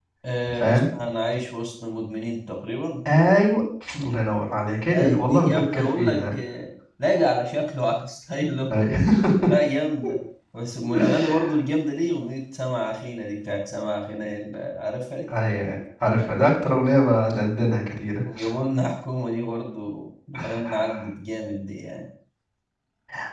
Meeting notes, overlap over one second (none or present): present